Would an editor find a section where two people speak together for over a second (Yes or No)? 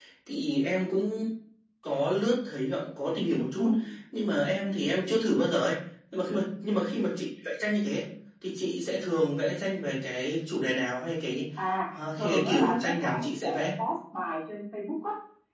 Yes